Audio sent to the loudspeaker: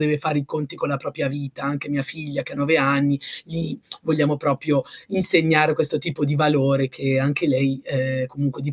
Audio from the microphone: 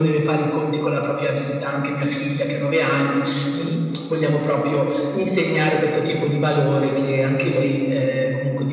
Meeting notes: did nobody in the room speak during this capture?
Yes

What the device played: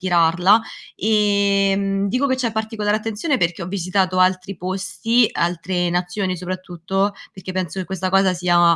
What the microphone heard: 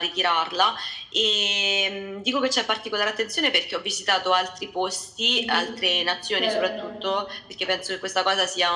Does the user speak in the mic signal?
Yes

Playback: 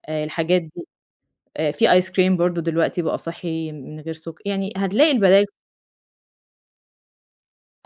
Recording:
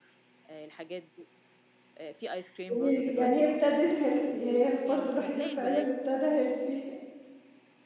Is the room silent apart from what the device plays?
No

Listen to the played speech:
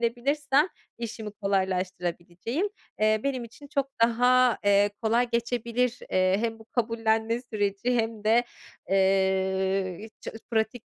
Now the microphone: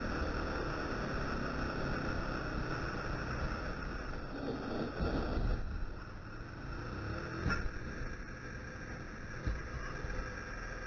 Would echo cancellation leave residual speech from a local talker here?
No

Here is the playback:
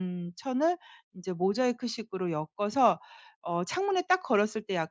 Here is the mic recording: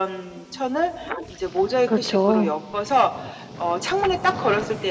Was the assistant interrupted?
Yes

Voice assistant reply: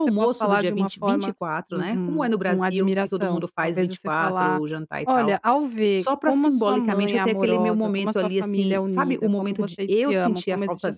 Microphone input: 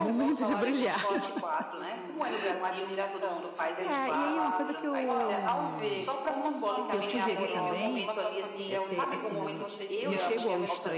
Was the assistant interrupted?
Yes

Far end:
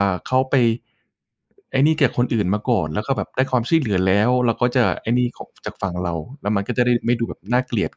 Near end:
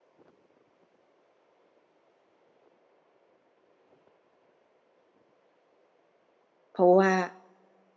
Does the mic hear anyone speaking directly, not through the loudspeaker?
Yes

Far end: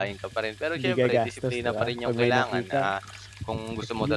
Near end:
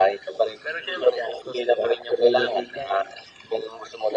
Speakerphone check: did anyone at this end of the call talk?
No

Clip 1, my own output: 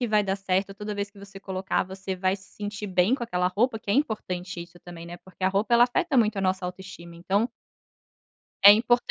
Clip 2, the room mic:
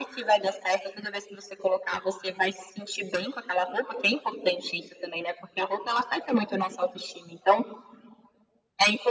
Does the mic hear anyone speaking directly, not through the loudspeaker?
No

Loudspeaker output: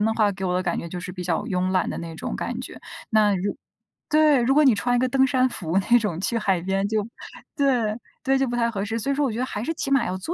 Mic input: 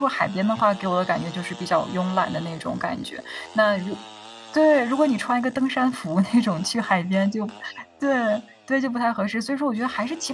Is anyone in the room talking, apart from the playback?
No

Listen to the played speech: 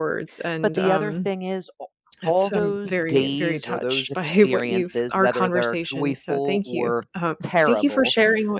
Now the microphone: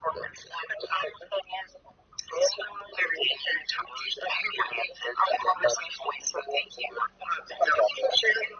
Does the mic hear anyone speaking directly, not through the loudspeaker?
No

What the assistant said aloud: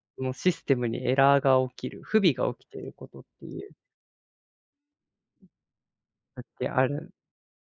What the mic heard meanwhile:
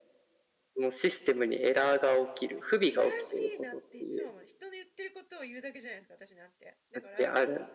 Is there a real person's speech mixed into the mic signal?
Yes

